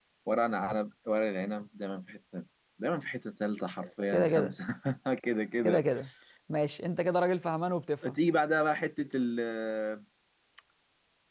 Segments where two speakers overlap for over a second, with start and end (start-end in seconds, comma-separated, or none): none